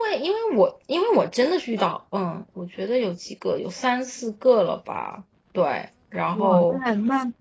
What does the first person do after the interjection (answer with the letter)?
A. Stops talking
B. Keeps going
A